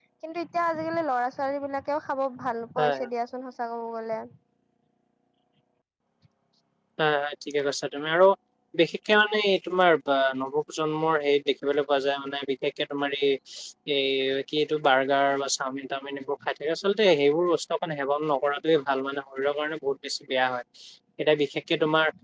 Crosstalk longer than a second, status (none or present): none